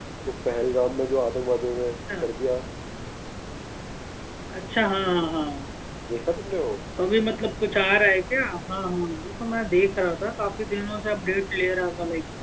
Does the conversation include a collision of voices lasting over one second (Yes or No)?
No